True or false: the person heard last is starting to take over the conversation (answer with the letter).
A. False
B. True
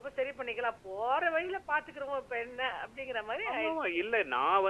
B